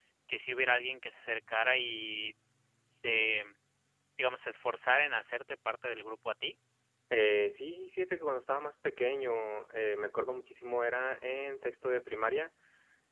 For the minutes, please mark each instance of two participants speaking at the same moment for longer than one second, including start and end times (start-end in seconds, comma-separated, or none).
none